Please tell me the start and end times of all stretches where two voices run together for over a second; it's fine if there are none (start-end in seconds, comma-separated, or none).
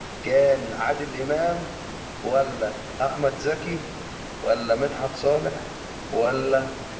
none